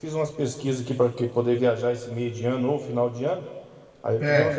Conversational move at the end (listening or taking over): listening